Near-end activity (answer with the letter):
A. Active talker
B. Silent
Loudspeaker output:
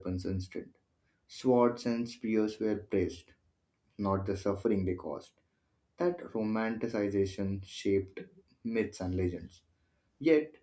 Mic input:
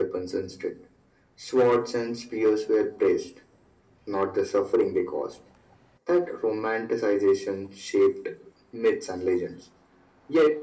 B